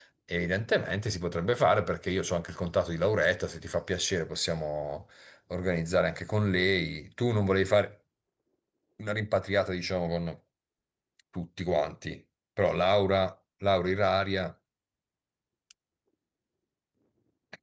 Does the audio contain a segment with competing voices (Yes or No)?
No